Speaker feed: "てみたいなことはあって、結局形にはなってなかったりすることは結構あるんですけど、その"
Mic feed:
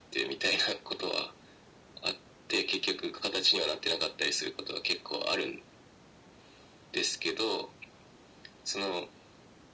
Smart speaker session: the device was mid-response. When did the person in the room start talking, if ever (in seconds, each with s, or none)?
none